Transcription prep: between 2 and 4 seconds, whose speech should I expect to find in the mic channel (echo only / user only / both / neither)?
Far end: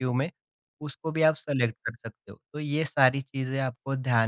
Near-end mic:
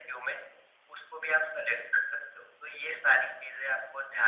echo only